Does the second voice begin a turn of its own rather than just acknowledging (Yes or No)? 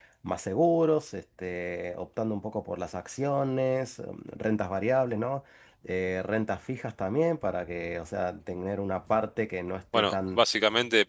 Yes